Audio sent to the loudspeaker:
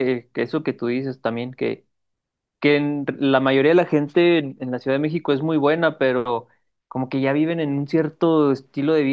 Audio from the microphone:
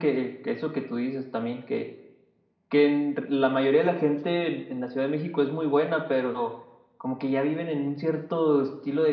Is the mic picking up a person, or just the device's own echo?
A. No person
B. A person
A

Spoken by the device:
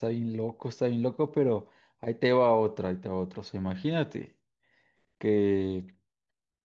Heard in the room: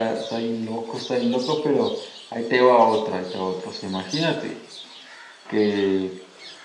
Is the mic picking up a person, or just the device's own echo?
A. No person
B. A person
A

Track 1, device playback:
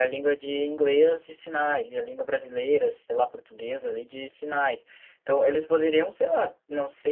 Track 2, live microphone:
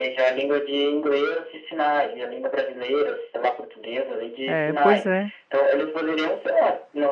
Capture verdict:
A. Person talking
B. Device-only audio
A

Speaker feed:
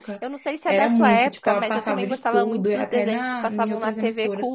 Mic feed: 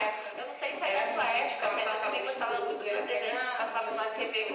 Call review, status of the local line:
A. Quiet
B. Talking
A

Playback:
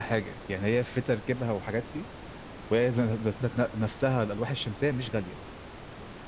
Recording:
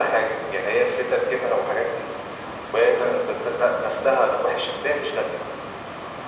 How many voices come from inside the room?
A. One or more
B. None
B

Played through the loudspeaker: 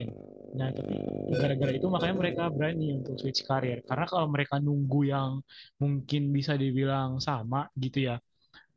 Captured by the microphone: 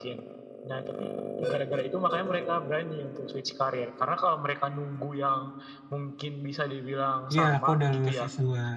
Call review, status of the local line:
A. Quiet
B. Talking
B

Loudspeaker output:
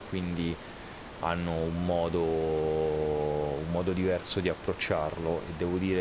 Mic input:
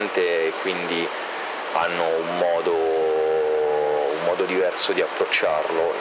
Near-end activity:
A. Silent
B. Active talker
A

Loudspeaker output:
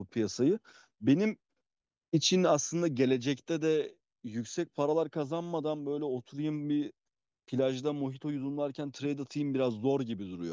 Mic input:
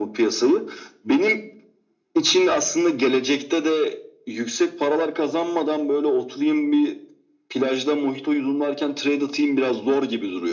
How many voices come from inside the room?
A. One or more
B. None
B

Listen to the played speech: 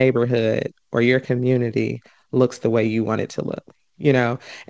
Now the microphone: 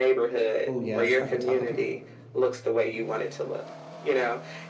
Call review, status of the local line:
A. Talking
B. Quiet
A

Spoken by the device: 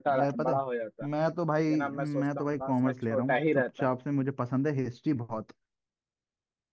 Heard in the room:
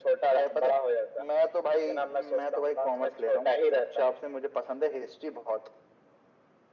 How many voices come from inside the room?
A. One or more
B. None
B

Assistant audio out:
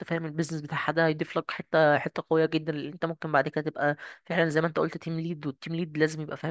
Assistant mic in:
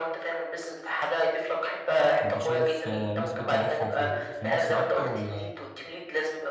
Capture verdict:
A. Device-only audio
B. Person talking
B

